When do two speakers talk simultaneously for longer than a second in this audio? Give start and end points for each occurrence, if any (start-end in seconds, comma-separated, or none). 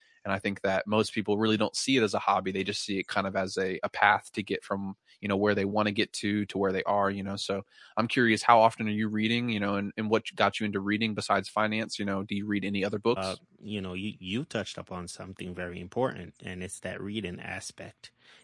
none